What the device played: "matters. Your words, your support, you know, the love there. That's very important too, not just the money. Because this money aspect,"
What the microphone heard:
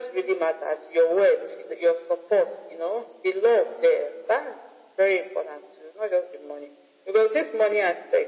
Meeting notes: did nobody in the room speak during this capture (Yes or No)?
Yes